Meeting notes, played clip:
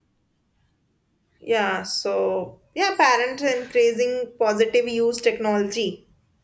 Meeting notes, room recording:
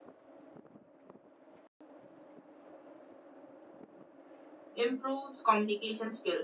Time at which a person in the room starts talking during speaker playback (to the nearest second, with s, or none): 5 s